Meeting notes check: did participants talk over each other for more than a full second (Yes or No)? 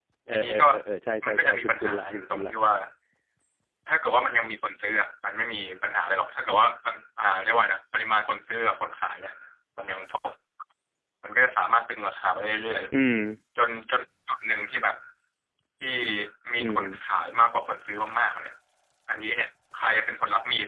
Yes